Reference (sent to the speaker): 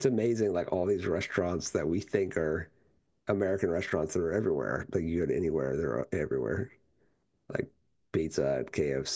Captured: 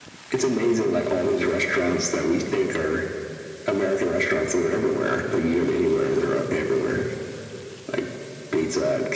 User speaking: No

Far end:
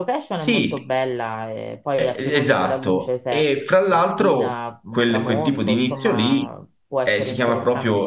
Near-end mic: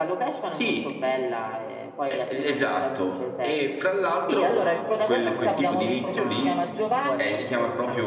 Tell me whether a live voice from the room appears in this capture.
Yes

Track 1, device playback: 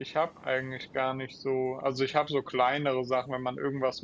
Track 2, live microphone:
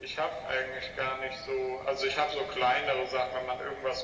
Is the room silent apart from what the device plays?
Yes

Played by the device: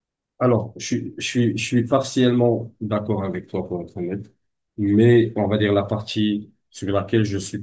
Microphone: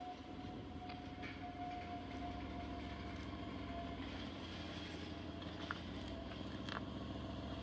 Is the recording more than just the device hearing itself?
No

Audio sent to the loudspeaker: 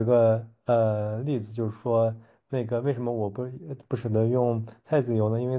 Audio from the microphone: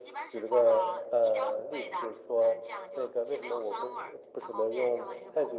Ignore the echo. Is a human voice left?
Yes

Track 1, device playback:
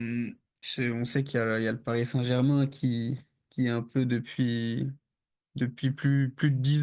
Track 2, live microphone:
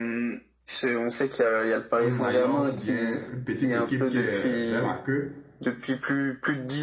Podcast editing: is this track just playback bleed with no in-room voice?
No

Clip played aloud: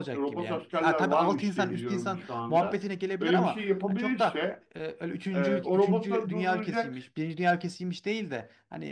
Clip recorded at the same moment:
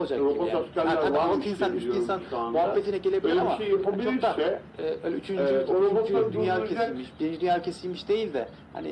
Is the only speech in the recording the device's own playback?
No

